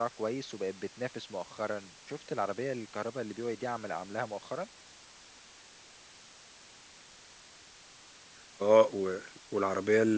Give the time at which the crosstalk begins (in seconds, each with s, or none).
none